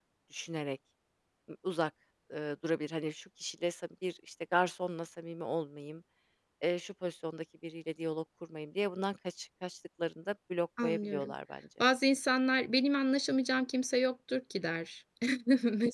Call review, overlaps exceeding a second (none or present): none